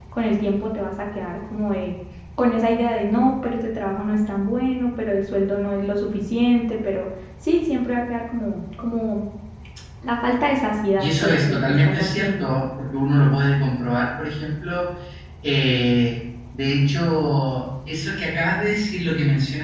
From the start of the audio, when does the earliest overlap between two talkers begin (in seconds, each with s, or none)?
11.0 s